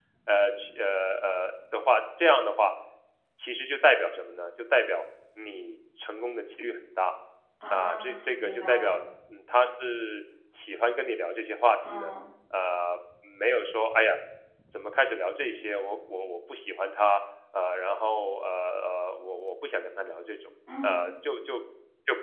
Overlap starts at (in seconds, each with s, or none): 7.7 s